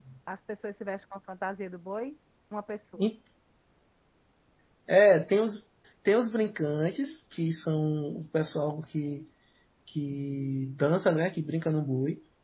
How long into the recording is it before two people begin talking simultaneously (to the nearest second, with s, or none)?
none